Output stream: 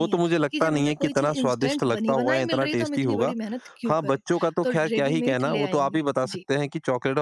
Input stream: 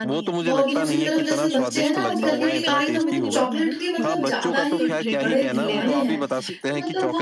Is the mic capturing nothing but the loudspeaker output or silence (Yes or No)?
No